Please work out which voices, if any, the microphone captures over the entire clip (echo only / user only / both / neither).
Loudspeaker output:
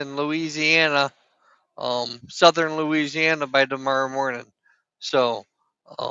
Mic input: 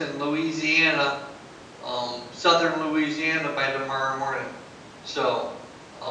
echo only